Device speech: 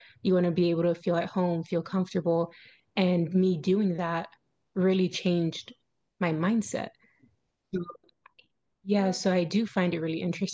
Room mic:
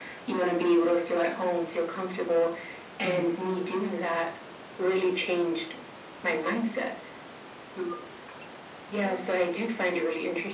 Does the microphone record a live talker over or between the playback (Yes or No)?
Yes